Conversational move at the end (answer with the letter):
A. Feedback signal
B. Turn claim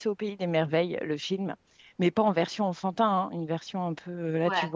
A